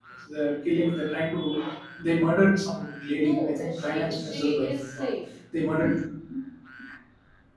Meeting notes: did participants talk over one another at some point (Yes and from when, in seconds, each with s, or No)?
Yes, from 3.1 s